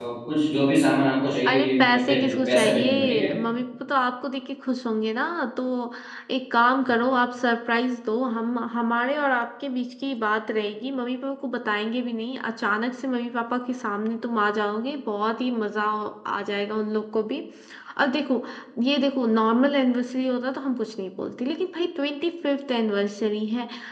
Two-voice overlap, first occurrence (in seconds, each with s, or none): 1.4 s